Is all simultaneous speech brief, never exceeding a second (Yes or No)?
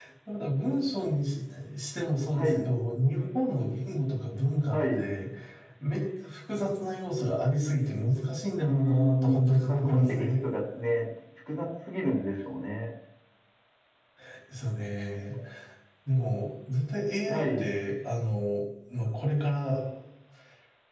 No